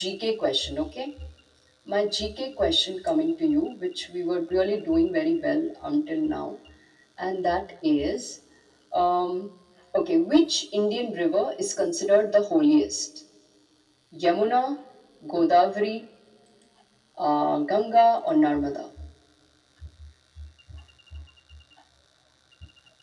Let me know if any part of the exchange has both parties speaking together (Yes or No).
No